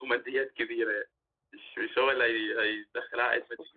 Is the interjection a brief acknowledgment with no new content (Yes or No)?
No